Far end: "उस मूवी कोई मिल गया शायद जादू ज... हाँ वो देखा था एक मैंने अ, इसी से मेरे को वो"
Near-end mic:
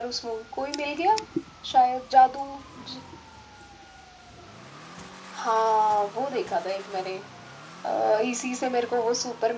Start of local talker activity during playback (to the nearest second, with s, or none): none